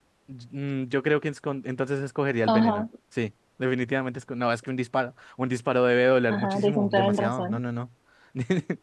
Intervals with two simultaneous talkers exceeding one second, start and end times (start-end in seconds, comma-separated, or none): 6.3-7.6